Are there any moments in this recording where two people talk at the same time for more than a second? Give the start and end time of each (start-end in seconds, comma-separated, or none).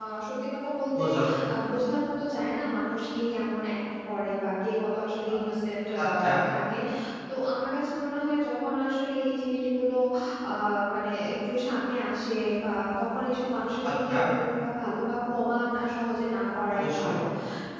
none